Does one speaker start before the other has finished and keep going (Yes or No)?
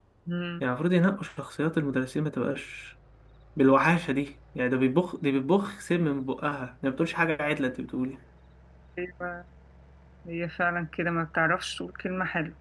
No